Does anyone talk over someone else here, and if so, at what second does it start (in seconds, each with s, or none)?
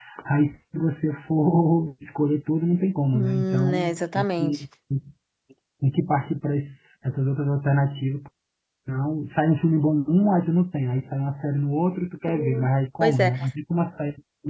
3.1 s